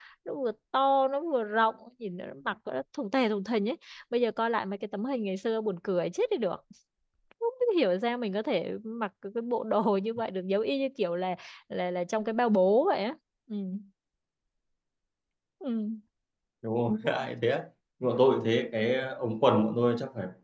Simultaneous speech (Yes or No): No